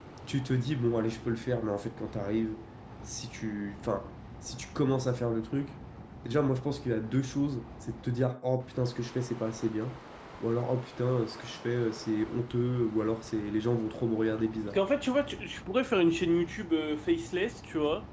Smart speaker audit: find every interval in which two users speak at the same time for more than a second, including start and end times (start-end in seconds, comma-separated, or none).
none